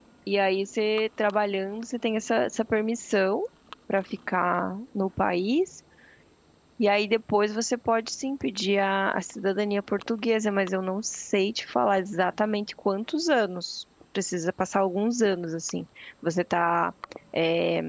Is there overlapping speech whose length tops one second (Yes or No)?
No